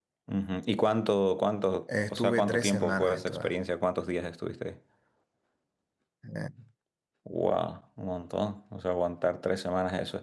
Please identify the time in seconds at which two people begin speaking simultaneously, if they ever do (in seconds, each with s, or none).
1.9 s